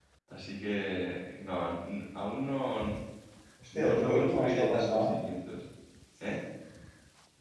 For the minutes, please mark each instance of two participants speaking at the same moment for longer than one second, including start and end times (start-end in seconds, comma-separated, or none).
3.8-5.1